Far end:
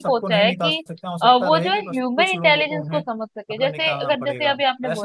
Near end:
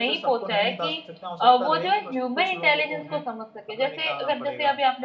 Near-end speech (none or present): none